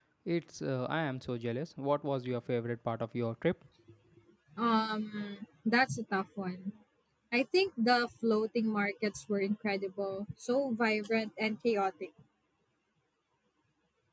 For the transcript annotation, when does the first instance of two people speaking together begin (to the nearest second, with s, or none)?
none